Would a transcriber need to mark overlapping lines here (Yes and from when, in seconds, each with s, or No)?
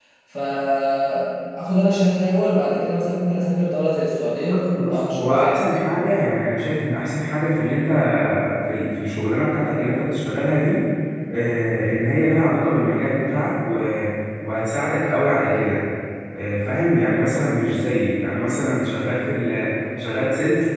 Yes, from 4.5 s